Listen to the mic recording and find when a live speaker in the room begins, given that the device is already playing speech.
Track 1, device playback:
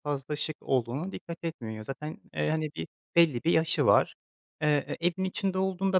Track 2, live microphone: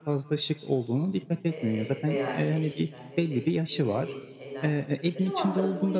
1.5 s

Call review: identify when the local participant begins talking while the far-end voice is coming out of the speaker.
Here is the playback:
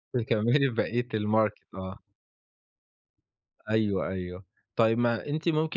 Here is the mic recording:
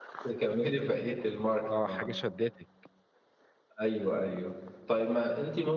1.7 s

